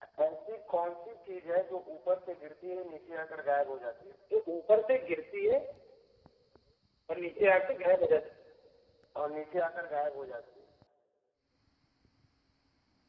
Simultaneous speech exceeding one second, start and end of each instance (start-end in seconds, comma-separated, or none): none